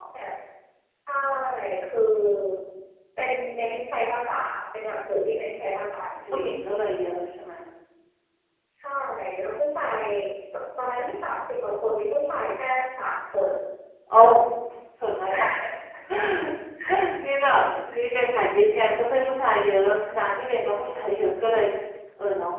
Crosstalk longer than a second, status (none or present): none